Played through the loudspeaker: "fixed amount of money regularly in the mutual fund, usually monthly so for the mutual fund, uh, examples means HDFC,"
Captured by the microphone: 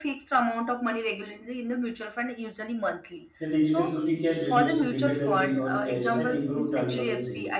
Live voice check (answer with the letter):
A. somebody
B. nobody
A